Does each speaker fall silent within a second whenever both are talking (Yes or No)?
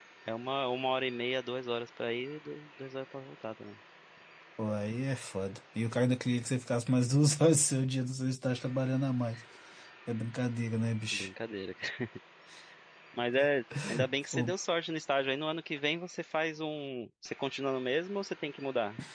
Yes